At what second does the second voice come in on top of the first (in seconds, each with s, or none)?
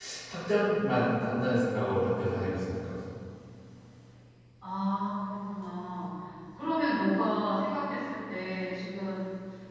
none